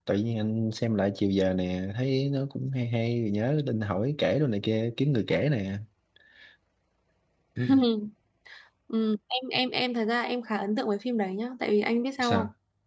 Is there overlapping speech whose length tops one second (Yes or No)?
No